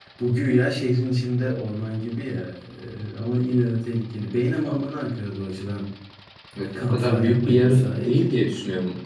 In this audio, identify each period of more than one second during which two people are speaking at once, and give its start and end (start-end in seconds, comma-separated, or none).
6.8-8.1